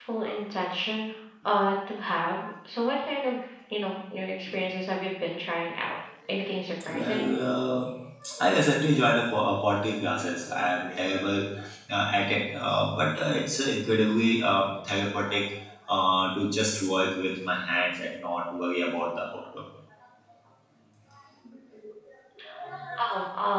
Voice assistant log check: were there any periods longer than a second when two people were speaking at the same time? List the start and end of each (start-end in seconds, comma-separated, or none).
none